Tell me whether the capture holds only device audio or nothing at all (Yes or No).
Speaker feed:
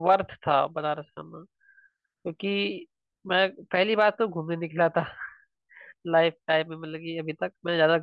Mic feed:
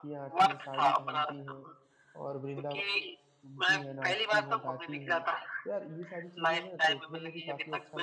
No